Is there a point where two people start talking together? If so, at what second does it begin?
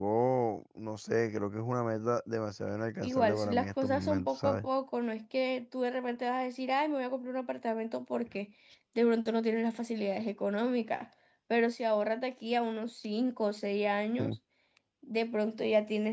3.0 s

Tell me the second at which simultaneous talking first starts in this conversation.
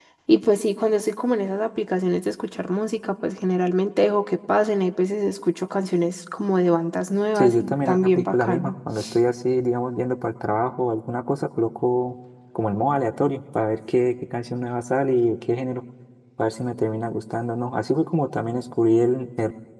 7.4 s

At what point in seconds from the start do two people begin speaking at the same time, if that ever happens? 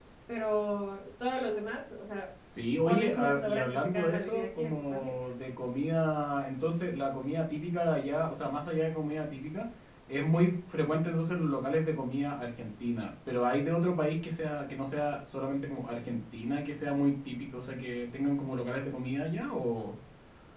2.9 s

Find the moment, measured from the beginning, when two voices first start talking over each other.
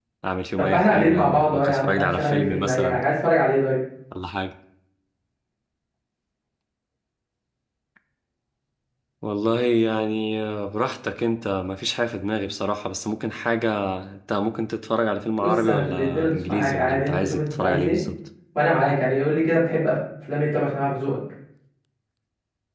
0.6 s

